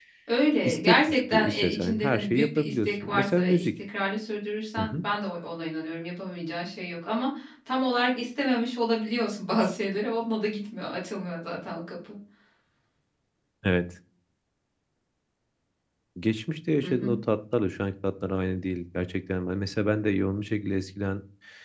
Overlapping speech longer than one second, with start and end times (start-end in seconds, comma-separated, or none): 0.7-3.7